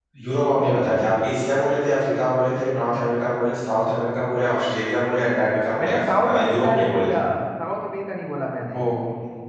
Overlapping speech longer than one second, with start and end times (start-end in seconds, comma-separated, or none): 5.8-7.2